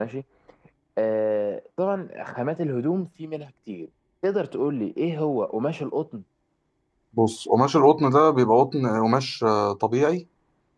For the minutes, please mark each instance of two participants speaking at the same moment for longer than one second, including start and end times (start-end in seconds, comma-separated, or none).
none